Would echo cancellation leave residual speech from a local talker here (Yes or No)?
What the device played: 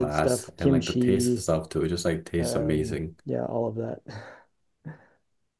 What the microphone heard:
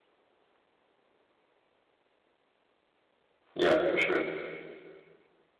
Yes